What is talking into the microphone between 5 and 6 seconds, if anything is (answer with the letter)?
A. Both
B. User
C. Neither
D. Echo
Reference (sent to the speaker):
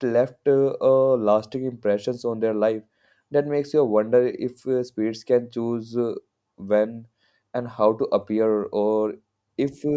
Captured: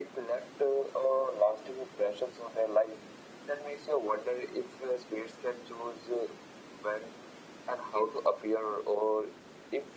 D